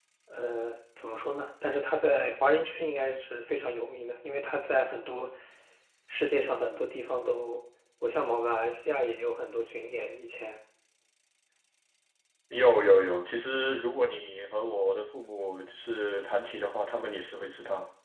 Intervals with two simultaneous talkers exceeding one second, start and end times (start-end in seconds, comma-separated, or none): none